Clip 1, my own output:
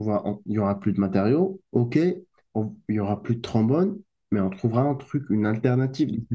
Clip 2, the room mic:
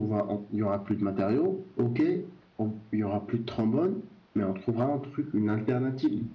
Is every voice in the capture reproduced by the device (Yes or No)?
Yes